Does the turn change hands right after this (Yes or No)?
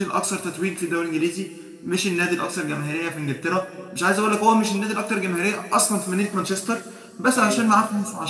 No